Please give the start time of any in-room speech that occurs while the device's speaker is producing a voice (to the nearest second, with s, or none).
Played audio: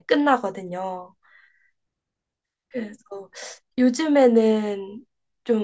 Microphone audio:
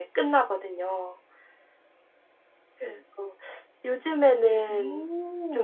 5 s